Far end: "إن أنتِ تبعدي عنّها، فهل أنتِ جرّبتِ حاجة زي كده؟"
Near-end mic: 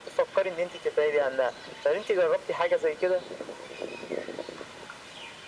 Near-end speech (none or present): none